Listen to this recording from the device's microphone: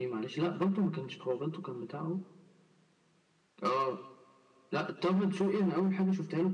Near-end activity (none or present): none